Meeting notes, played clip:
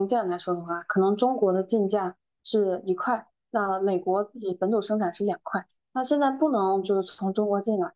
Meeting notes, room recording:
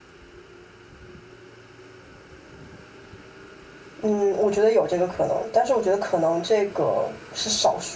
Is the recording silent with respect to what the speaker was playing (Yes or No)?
Yes